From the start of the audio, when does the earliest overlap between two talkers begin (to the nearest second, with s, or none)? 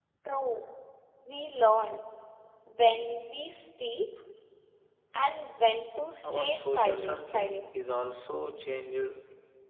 6 s